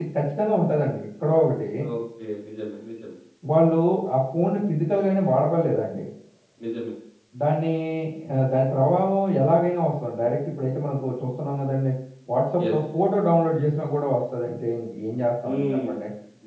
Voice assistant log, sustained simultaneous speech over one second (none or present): none